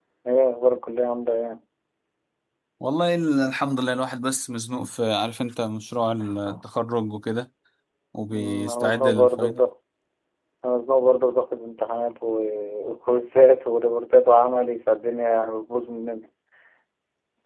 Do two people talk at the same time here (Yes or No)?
Yes